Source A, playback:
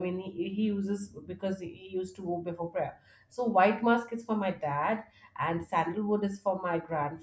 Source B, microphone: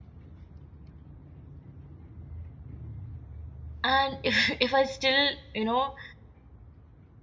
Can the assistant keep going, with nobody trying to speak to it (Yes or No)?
No